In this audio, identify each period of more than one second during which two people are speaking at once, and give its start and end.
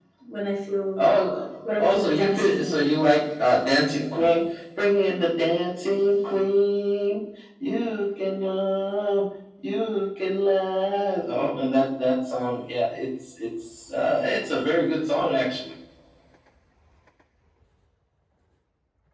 1.6-2.9

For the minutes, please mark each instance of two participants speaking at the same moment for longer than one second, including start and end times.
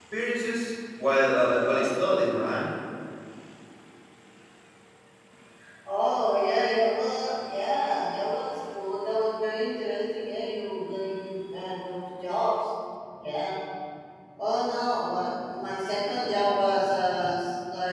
none

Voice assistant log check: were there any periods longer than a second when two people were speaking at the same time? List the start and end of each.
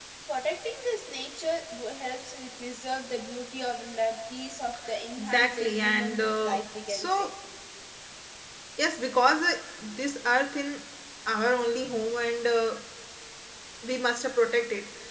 5.2-7.3

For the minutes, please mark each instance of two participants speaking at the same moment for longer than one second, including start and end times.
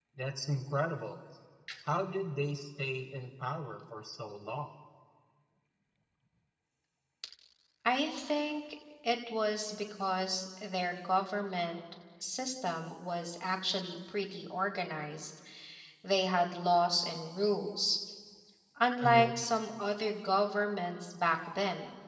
none

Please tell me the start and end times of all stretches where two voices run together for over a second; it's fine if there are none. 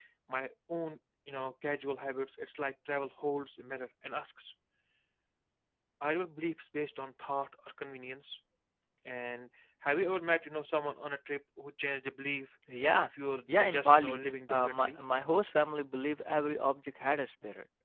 13.6-15.0

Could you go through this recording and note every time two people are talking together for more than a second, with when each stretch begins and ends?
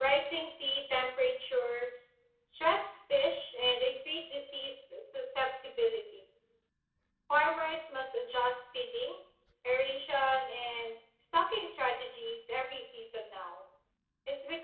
none

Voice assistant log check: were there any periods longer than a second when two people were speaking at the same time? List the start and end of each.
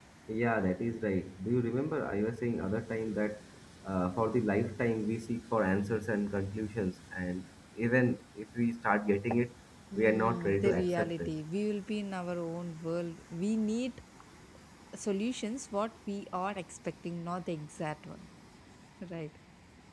9.9-11.3

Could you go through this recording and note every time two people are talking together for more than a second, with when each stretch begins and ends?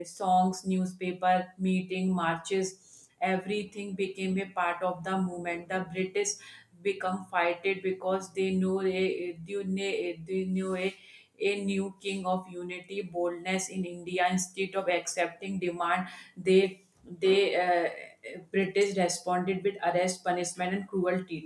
none

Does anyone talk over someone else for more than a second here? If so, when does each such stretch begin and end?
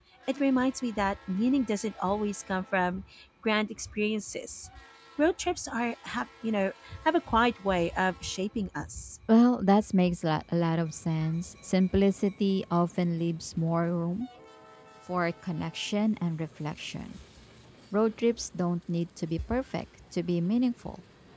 none

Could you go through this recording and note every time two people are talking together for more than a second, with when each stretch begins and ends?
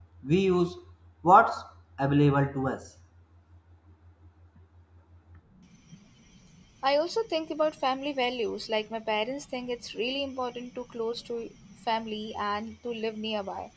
none

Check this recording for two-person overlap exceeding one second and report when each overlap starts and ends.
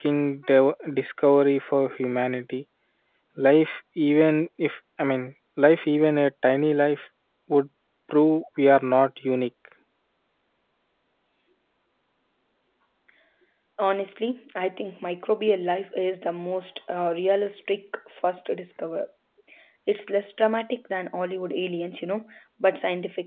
none

